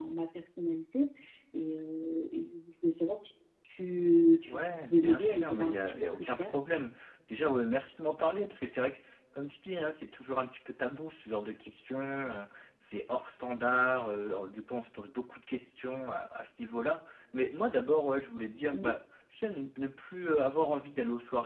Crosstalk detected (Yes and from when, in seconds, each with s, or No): Yes, from 4.4 s